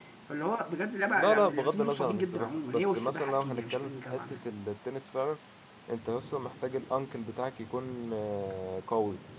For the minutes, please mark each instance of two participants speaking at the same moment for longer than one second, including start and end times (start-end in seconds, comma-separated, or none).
1.1-4.4